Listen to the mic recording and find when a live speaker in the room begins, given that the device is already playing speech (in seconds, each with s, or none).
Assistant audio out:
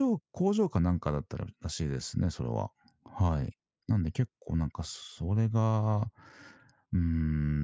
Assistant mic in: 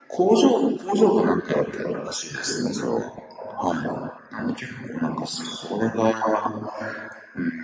none